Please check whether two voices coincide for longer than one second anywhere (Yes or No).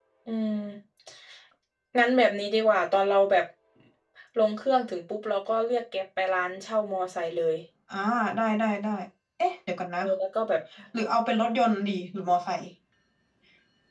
No